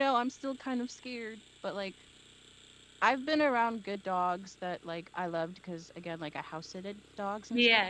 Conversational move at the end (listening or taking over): taking over